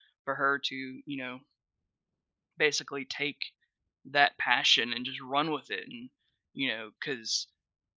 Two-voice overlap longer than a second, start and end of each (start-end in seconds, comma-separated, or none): none